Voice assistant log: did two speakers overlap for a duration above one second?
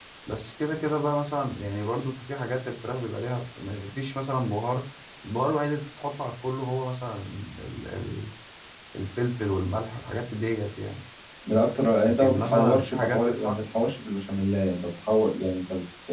Yes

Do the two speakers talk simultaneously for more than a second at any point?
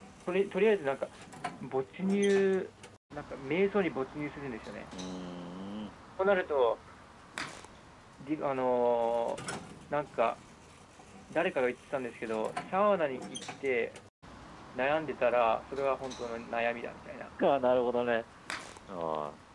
No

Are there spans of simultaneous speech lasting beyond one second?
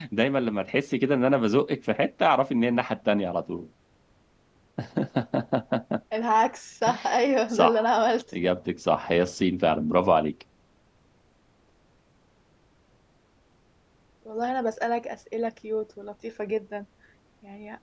No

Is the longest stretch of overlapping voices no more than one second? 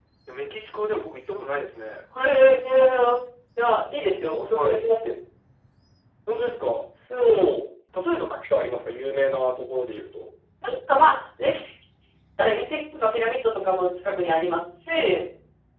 Yes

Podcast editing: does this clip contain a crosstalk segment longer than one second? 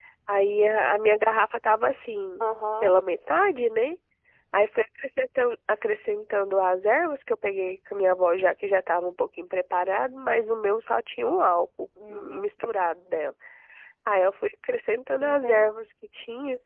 No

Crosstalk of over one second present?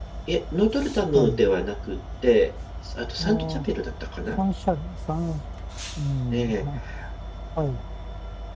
No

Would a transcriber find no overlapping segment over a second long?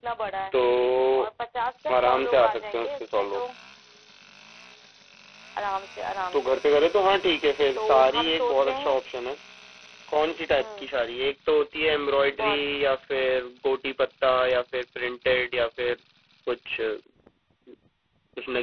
No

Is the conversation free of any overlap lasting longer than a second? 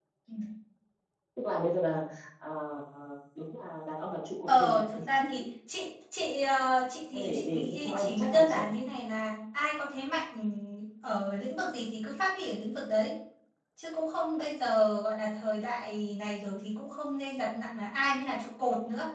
No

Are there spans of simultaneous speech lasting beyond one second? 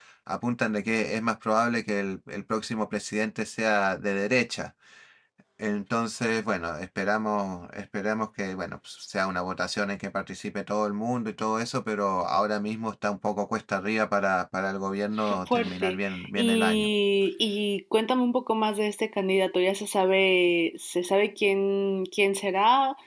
Yes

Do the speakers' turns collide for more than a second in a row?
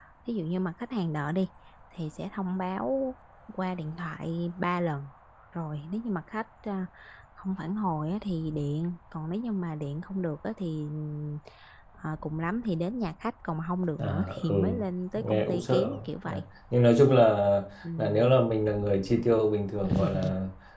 Yes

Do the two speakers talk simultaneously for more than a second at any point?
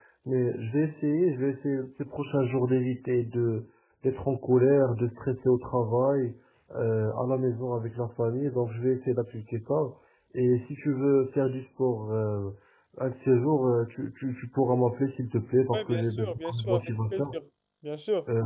Yes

